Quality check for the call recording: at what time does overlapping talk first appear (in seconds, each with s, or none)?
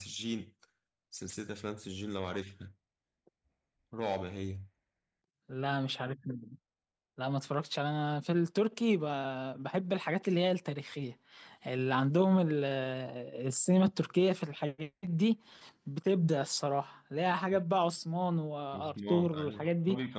18.7 s